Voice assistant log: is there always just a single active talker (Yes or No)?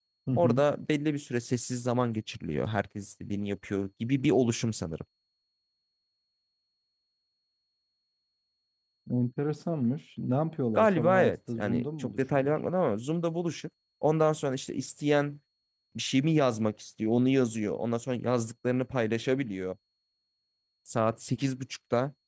No